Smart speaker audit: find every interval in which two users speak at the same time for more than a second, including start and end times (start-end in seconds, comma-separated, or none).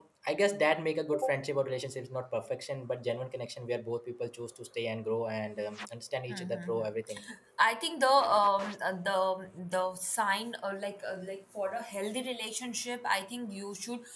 none